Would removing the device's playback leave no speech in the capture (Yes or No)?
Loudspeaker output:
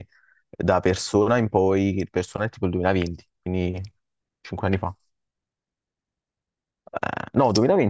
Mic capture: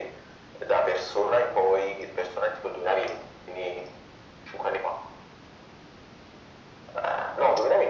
Yes